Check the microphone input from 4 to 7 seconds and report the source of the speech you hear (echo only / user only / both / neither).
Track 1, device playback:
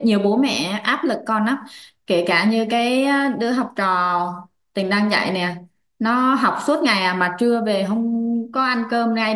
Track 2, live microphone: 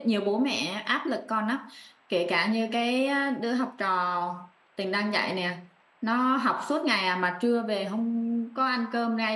echo only